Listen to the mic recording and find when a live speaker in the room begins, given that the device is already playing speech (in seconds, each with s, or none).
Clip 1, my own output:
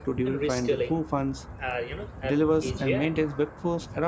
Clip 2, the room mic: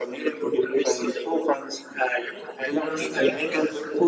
2.8 s